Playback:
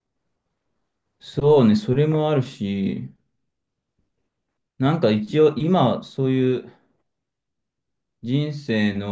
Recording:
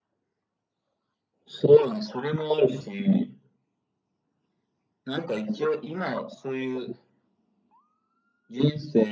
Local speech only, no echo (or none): none